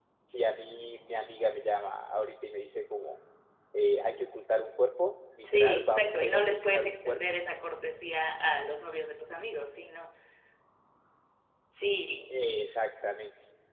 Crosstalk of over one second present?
Yes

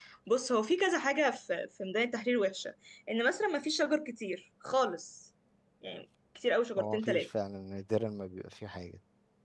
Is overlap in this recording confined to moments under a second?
Yes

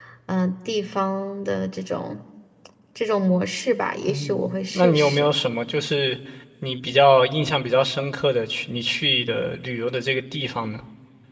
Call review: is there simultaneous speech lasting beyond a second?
Yes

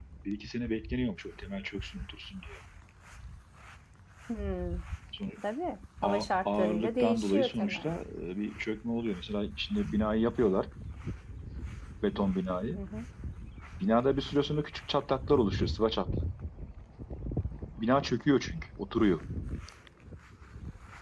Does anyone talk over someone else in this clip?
Yes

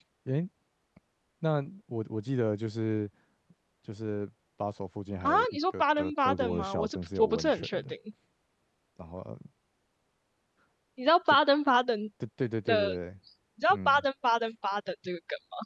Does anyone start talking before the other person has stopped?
Yes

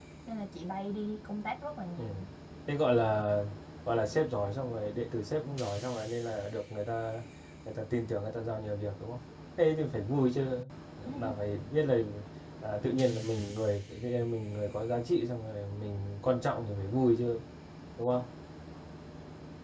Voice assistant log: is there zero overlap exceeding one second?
Yes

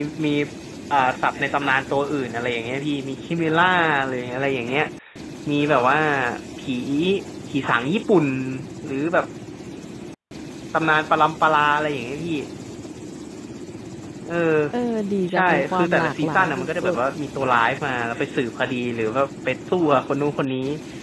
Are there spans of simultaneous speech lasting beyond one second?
Yes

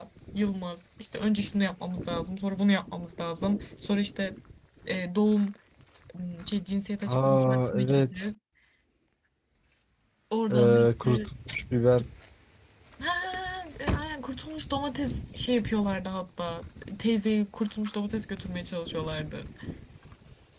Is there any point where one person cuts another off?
Yes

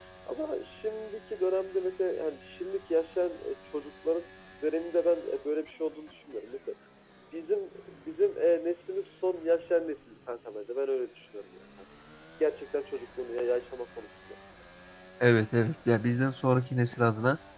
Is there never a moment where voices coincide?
Yes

